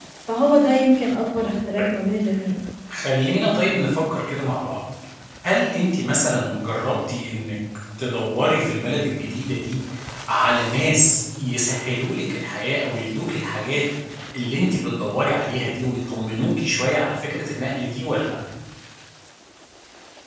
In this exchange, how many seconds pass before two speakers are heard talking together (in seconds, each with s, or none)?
none